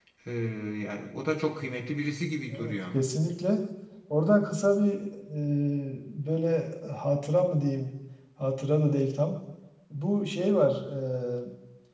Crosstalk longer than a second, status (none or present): none